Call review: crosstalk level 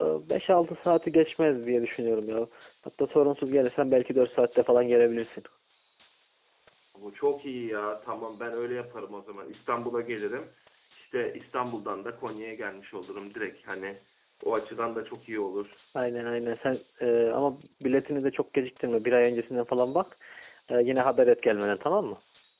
none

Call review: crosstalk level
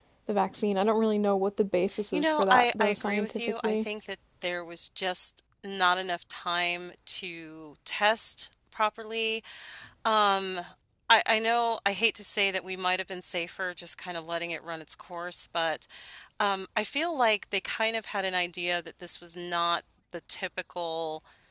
present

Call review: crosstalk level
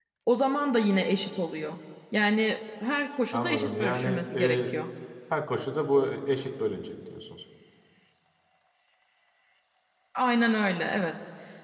present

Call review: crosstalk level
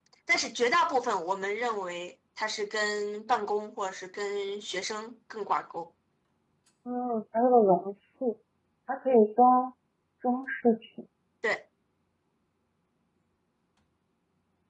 none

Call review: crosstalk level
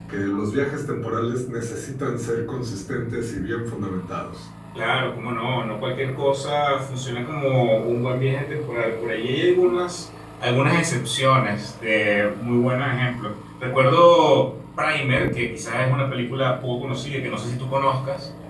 none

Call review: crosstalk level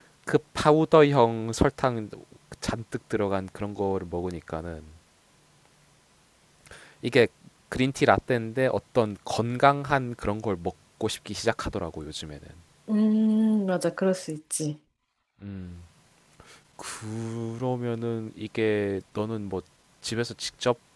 none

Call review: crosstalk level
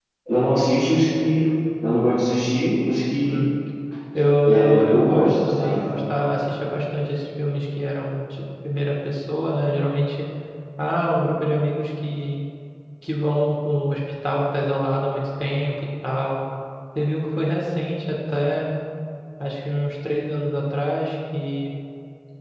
present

